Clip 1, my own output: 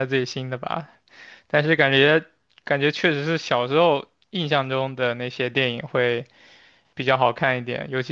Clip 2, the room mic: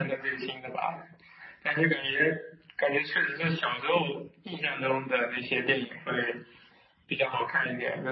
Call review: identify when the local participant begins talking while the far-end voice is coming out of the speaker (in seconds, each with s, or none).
none